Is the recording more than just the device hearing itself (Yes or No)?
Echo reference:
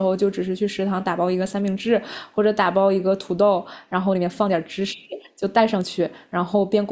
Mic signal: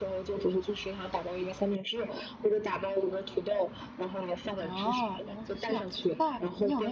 Yes